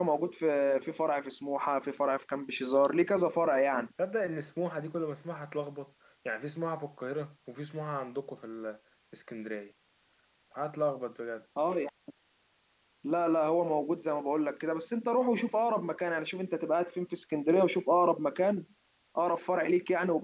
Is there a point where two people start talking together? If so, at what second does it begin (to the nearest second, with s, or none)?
none